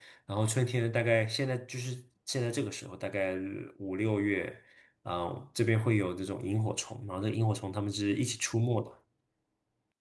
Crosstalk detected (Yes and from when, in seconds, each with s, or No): No